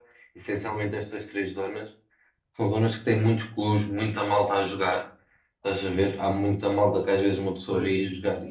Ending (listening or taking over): listening